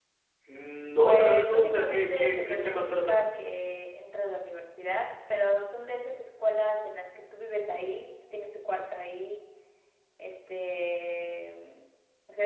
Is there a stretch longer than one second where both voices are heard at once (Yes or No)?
Yes